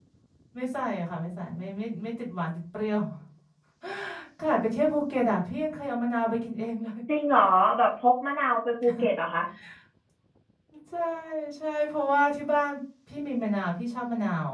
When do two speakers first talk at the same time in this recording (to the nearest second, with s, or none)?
none